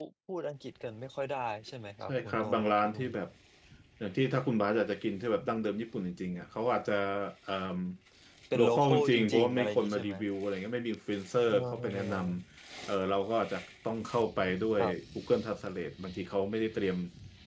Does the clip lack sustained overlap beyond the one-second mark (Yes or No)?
No